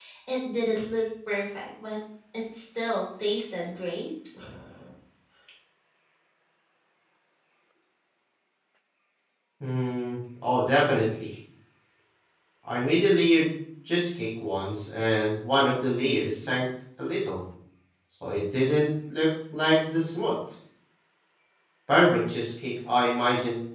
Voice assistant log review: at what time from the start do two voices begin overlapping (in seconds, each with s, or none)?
none